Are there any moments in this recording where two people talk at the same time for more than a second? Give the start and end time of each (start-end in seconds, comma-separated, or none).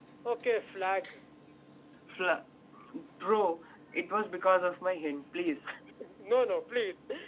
none